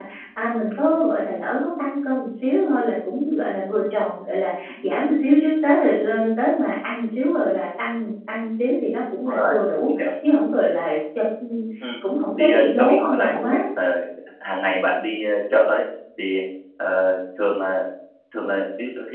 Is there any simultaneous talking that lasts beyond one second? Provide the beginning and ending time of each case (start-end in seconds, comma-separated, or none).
12.4-13.6